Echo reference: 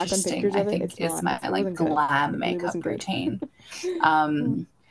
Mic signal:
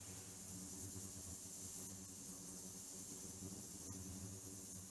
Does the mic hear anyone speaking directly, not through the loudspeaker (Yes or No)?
No